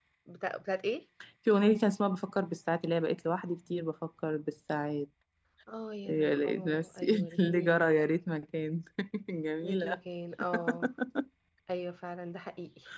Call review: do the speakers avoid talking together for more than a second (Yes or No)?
No